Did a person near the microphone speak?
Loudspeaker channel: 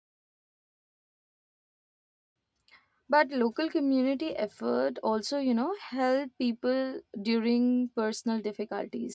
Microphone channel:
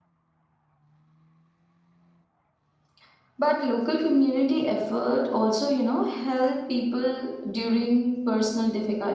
No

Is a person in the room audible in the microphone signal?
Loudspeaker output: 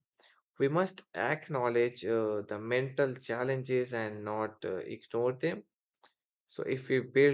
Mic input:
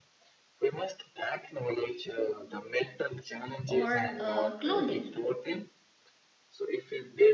Yes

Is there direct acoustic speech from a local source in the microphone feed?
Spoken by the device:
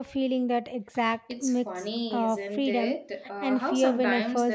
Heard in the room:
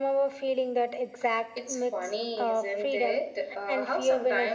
No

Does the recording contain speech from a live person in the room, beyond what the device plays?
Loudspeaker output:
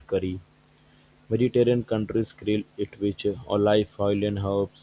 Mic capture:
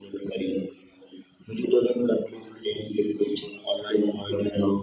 No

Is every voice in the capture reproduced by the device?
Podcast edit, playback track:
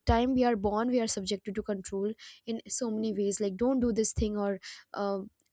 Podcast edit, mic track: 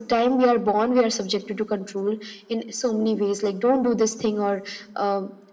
Yes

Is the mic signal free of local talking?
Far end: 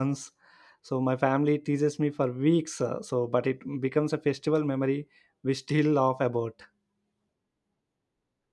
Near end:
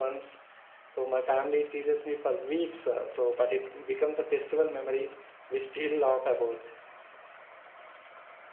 Yes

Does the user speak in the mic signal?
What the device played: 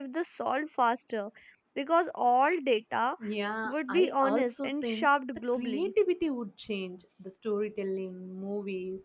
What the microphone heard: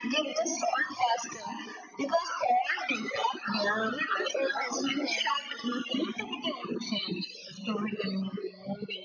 No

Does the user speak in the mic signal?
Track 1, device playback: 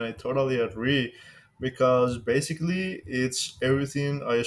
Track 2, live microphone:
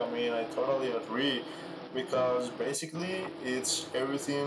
No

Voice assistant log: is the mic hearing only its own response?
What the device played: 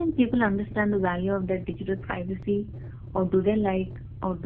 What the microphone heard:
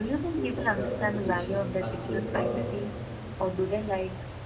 No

